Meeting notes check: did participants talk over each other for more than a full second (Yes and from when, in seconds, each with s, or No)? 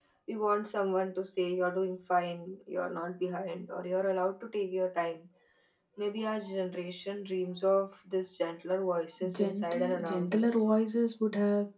Yes, from 9.2 s